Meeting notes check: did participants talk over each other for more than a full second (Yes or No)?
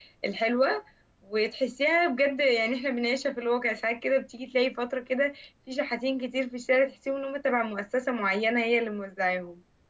No